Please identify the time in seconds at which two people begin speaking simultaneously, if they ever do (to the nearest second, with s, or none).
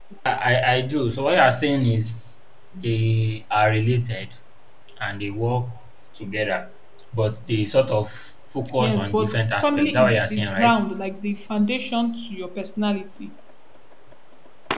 9 s